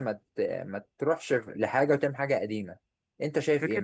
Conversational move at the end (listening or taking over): taking over